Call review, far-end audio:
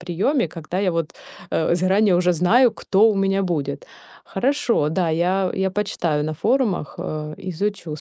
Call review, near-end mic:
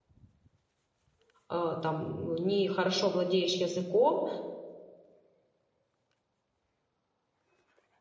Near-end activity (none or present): present